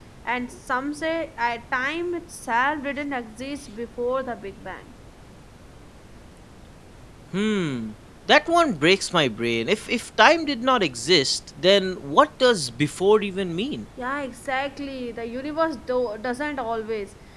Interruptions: none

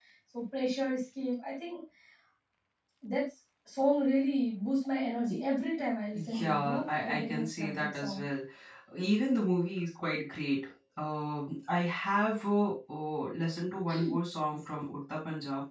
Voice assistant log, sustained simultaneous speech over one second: present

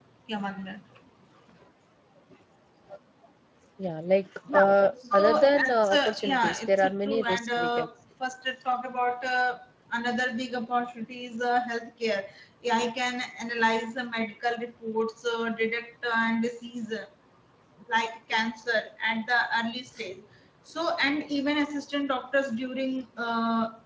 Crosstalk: present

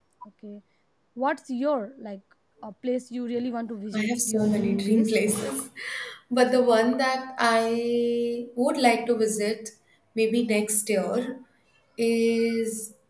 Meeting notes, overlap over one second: present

